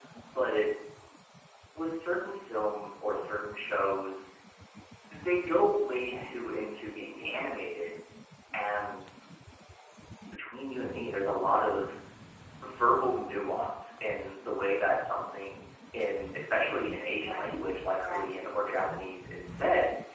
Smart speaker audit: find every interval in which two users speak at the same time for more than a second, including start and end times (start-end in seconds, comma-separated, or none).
none